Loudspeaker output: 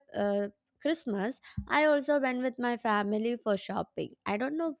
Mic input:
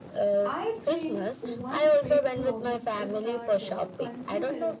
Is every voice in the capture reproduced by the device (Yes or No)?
No